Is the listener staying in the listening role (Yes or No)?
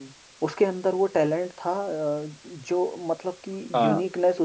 Yes